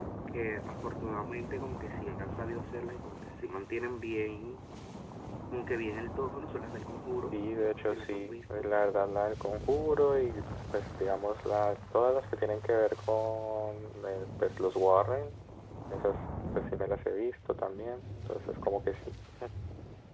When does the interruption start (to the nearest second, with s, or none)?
7 s